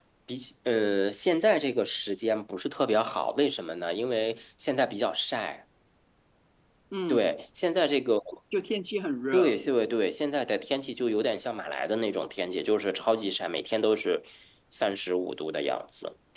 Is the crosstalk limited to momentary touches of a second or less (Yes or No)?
Yes